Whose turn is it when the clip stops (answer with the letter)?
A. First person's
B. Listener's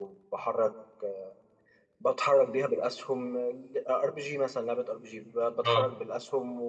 A